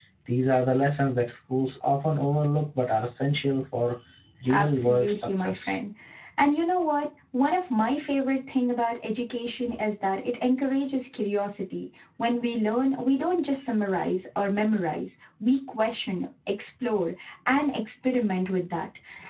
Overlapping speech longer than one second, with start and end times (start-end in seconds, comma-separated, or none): 4.5-5.7